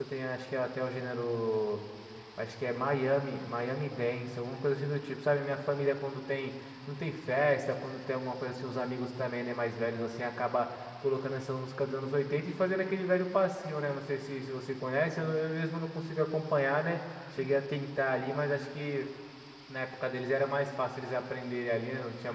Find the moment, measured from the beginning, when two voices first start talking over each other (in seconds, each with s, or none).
none